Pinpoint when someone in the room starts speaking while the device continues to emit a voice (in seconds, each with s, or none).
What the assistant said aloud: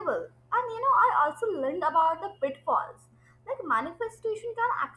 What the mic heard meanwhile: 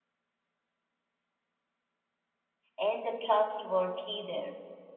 2.8 s